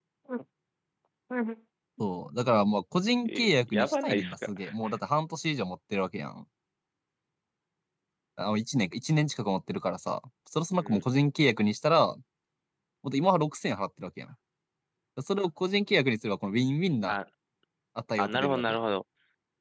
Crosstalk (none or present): present